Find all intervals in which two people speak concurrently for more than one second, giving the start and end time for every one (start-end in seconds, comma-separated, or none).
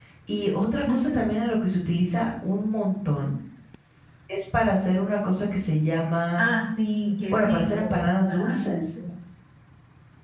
7.3-8.8